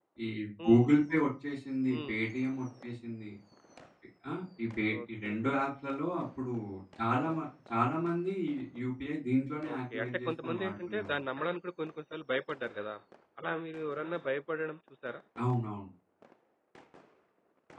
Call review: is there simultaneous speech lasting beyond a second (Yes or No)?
Yes